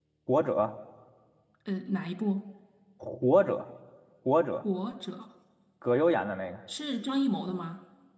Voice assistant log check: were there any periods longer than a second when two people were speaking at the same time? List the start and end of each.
none

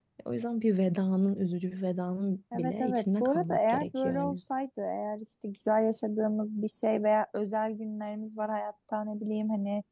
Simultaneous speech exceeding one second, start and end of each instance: 2.5-4.4

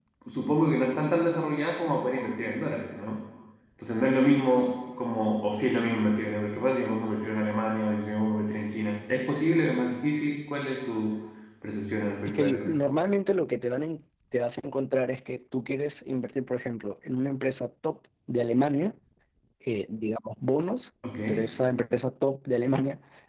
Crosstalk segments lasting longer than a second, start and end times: none

